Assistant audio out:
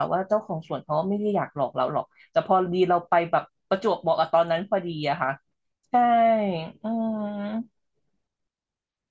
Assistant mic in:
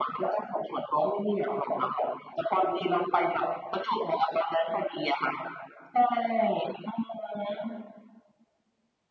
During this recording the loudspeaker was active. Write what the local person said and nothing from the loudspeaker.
none

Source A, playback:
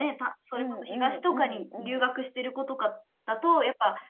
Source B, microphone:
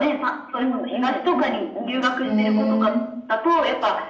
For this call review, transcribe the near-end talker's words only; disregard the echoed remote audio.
ー、えー、

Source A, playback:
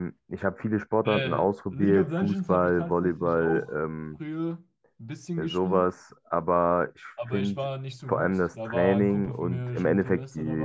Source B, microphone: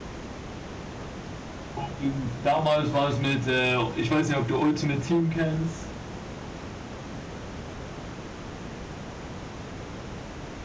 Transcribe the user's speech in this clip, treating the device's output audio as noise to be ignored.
Und damals war es mit, äh, ich weiß nicht, ob du Ultimate Team kennst.

